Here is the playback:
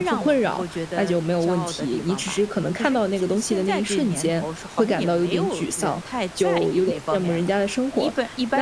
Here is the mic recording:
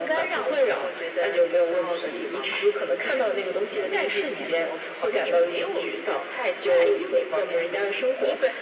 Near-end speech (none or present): none